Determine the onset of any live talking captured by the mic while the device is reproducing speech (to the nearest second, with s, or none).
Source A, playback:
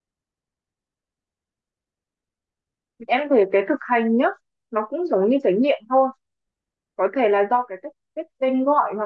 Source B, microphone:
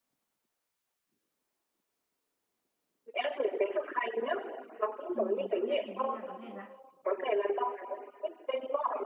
5 s